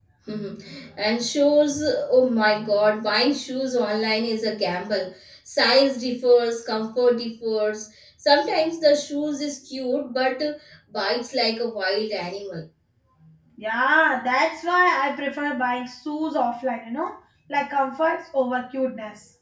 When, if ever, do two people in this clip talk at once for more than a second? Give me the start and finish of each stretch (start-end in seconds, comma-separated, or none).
none